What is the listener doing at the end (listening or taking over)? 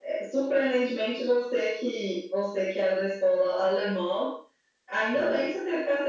listening